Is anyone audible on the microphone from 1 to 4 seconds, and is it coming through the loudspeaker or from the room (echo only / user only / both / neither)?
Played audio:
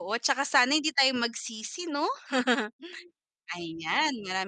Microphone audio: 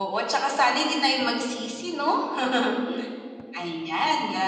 echo only